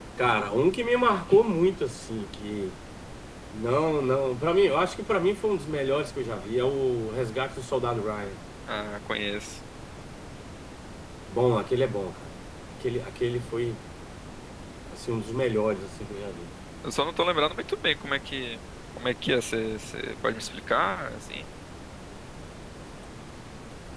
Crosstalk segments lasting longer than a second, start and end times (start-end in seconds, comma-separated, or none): none